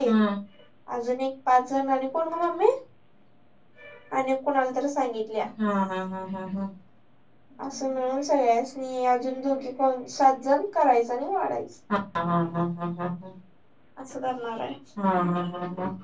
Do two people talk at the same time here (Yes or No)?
No